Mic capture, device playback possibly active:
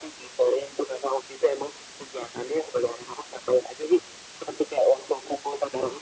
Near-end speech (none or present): none